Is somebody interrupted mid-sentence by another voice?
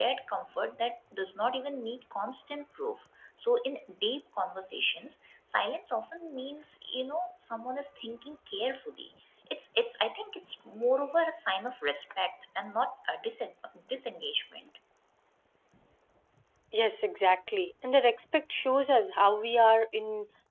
No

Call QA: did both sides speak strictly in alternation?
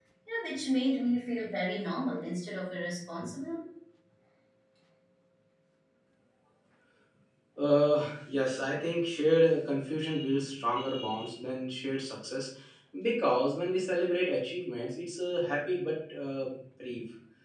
Yes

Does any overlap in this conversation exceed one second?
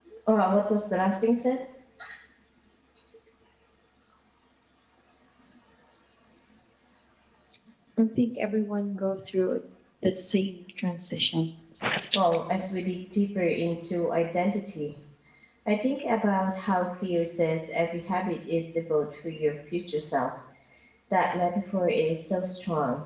No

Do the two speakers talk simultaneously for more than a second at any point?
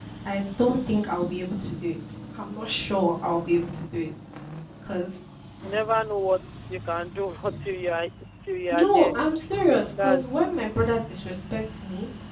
No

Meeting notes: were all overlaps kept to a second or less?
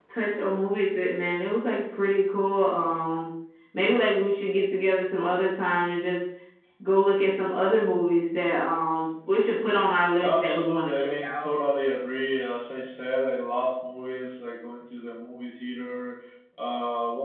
No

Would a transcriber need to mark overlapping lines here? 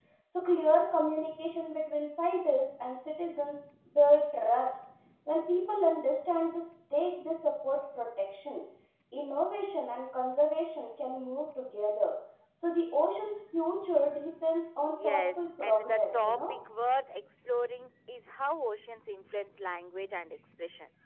Yes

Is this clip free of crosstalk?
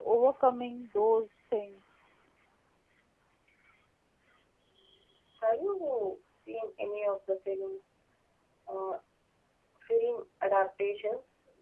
Yes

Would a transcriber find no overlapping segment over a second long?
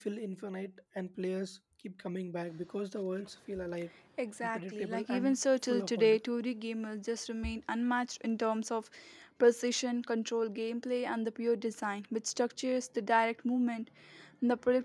No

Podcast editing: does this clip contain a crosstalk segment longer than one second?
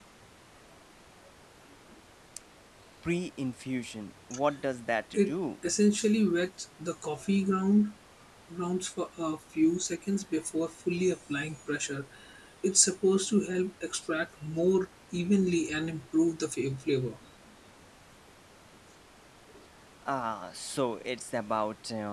No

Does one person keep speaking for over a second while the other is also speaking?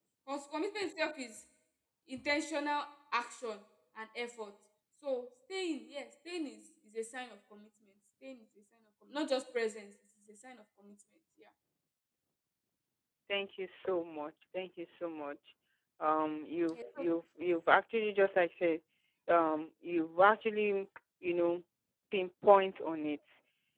No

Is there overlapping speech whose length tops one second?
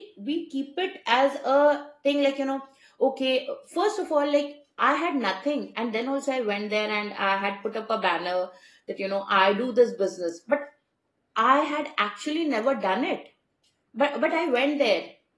No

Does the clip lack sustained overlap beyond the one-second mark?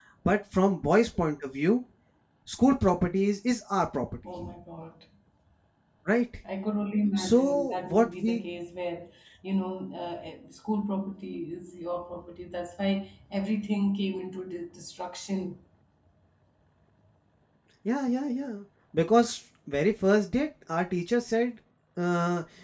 No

